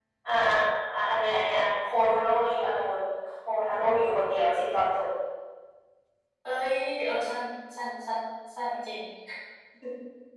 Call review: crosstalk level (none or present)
none